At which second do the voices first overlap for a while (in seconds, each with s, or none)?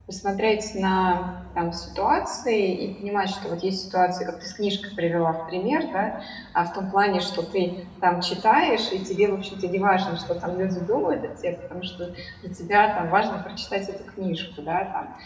none